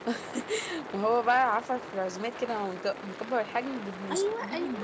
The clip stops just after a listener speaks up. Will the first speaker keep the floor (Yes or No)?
No